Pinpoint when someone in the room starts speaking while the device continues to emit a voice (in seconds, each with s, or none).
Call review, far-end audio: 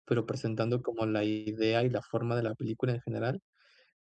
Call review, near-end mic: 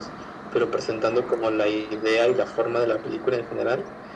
none